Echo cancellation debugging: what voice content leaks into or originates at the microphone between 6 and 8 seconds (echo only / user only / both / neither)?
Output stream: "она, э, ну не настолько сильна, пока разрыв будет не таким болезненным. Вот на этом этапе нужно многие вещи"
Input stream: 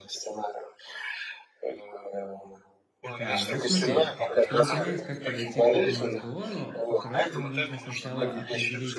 both